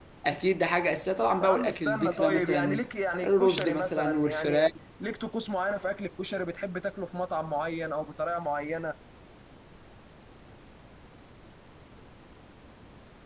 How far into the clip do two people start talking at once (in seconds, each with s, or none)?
1.4 s